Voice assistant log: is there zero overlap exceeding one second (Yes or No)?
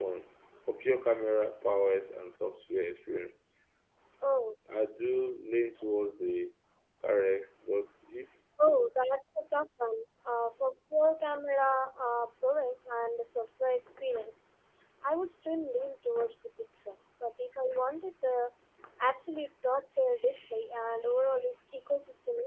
Yes